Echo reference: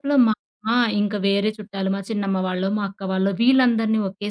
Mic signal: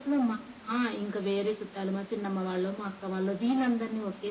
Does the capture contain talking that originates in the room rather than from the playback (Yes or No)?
No